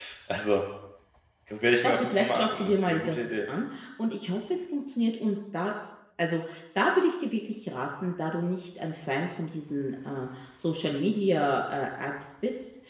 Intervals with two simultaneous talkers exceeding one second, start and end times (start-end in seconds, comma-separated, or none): 1.8-3.2